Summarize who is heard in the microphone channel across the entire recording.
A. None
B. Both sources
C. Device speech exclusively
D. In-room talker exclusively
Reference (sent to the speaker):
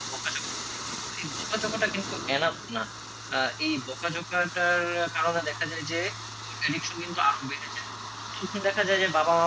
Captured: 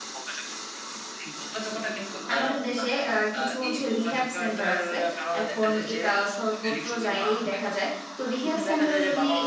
B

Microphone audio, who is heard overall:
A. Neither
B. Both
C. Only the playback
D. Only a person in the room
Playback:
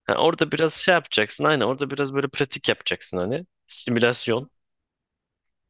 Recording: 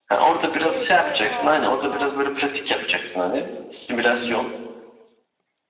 B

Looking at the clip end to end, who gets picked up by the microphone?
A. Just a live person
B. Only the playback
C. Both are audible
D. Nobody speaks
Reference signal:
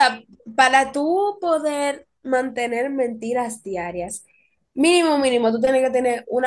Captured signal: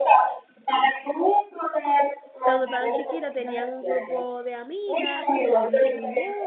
C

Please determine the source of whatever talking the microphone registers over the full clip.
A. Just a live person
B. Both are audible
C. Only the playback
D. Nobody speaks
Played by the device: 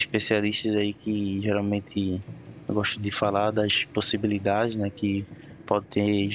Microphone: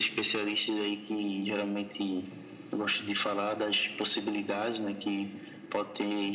C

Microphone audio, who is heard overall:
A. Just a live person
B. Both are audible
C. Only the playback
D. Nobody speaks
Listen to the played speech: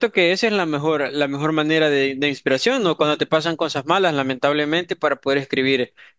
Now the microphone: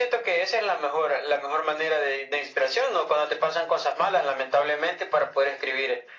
C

